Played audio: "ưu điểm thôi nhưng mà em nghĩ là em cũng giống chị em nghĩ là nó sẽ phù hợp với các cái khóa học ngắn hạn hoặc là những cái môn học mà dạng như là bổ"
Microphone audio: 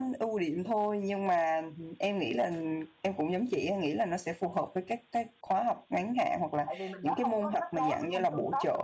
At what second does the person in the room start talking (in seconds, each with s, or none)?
6.6 s